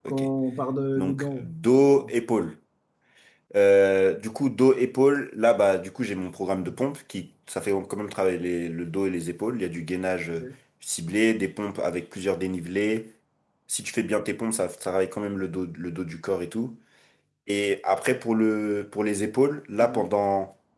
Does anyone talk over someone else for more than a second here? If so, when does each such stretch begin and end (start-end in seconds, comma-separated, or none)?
none